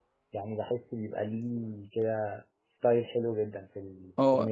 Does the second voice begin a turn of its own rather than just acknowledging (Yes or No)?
Yes